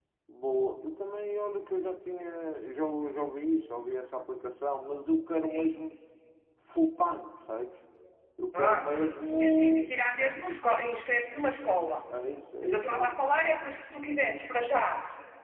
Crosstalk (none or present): present